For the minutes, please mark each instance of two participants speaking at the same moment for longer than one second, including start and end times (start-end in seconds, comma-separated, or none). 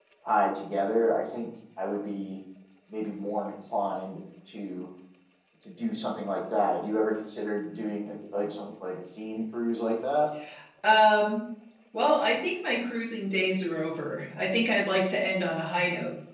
none